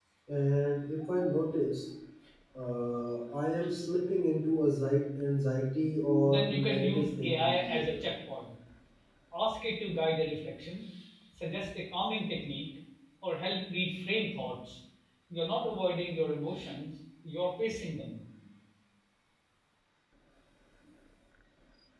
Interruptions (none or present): present